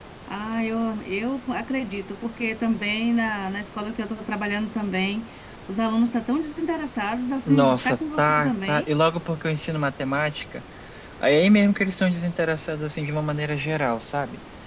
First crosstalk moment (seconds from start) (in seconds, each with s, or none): 7.5 s